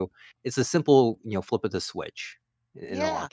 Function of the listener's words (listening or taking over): taking over